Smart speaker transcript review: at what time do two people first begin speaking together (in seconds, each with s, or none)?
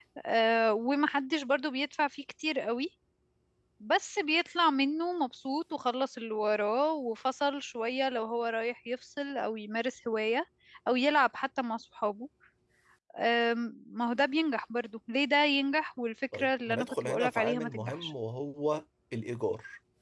16.3 s